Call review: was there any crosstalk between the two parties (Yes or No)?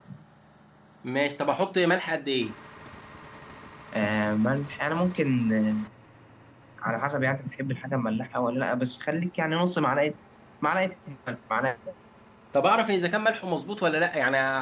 No